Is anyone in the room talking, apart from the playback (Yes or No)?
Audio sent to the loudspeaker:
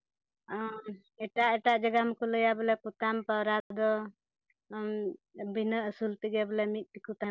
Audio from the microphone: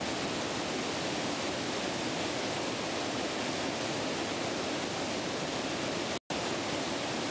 No